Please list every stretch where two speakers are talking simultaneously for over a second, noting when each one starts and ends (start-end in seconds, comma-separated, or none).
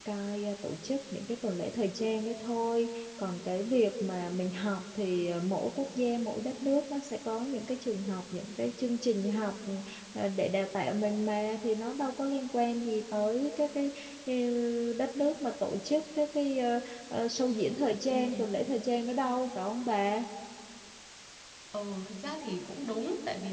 none